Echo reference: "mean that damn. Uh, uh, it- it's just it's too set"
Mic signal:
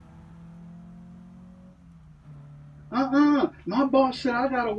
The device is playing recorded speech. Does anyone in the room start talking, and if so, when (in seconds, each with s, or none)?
2.9 s